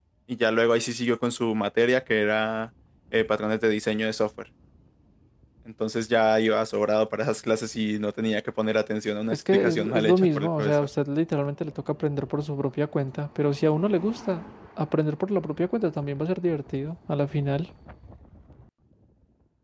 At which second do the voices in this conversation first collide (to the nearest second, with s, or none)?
9 s